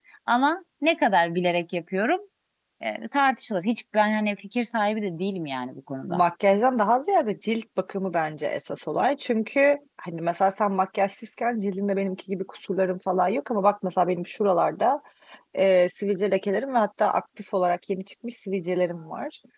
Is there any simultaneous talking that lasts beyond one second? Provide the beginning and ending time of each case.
none

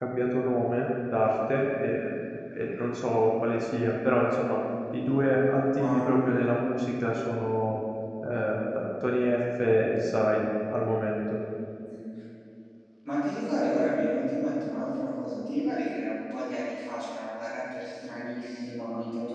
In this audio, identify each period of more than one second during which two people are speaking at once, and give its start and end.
none

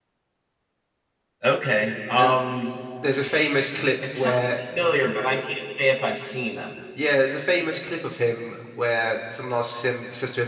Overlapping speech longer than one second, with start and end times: none

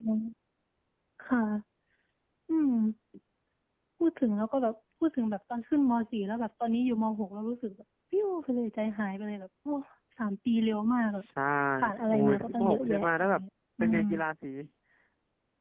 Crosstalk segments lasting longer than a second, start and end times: 12.1-13.4

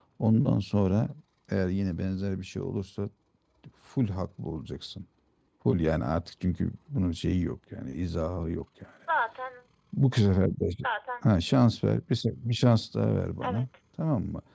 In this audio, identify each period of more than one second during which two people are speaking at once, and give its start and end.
none

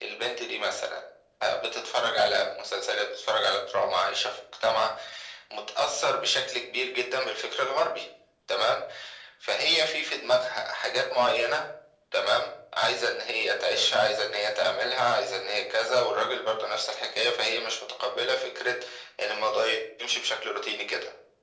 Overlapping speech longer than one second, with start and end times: none

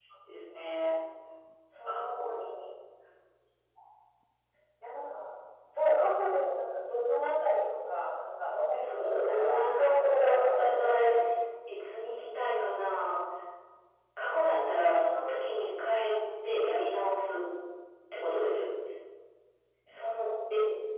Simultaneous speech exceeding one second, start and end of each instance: 8.8-10.6

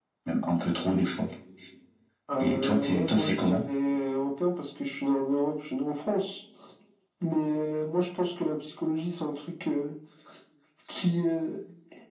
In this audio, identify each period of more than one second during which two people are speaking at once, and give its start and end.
2.4-3.6

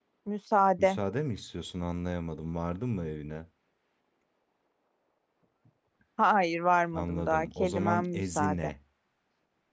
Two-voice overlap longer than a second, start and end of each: 6.9-8.7

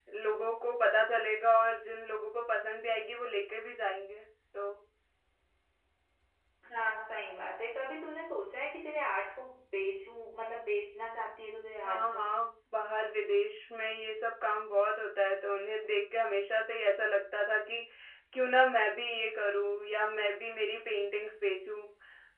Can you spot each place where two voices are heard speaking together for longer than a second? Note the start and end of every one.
none

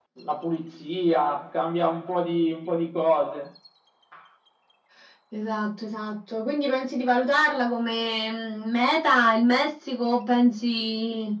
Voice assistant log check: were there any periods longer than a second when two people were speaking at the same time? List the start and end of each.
none

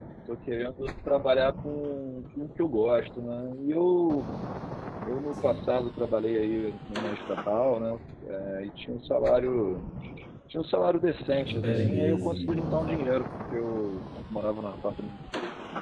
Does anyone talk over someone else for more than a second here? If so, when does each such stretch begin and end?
11.3-13.0

